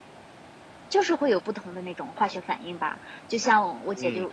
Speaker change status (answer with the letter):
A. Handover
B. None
B